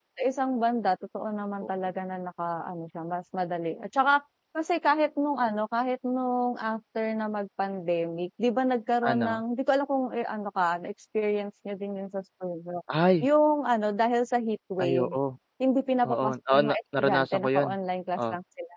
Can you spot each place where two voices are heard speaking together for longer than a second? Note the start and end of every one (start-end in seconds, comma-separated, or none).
16.1-17.8